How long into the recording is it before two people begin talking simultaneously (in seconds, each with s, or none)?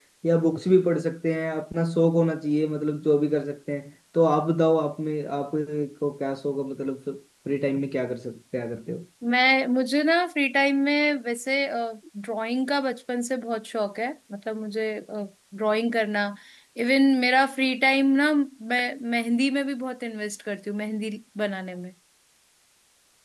none